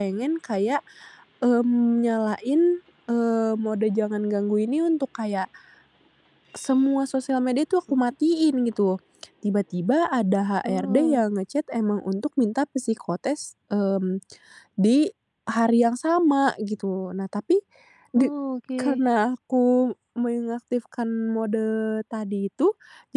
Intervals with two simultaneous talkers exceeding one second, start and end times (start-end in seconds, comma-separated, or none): none